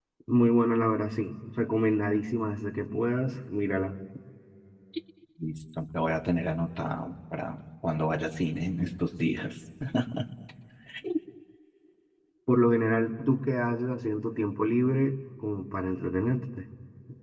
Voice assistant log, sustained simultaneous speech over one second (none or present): none